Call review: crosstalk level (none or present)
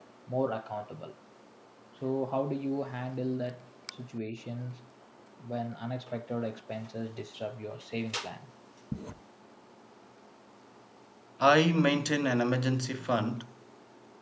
none